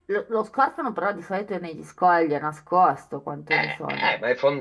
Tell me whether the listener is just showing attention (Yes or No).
No